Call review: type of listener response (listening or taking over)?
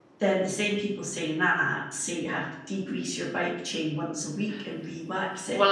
taking over